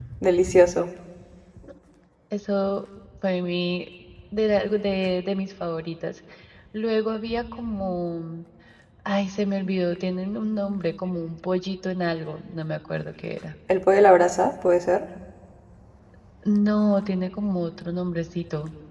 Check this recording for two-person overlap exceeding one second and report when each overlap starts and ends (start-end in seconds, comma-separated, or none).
none